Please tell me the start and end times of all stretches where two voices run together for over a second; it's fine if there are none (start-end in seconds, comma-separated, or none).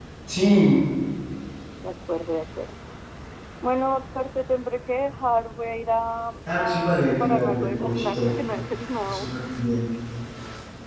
6.5-8.2